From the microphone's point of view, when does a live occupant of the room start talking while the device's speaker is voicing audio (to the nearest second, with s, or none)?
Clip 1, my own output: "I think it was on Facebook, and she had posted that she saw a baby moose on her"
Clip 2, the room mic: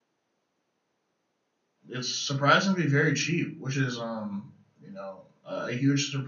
2 s